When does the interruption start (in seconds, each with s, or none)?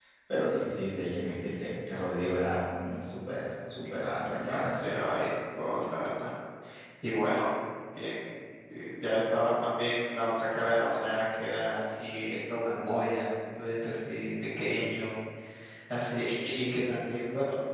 4.0 s